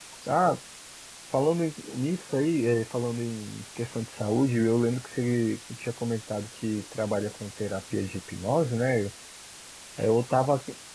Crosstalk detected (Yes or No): No